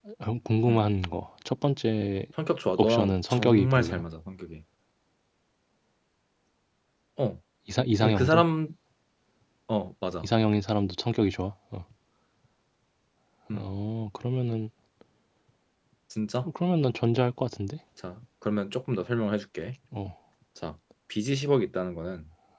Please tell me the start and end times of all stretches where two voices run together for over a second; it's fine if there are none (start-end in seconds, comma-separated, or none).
2.8-4.0